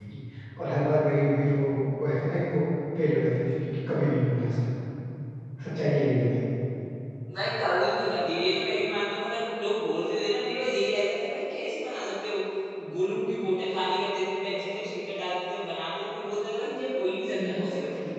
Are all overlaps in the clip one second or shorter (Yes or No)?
Yes